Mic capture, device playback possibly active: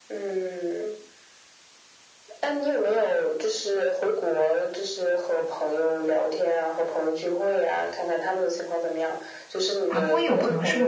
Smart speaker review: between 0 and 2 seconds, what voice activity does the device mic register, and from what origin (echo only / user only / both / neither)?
echo only